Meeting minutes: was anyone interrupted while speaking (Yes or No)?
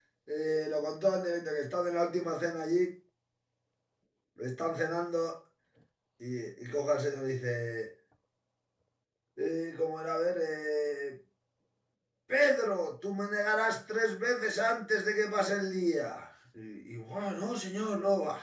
No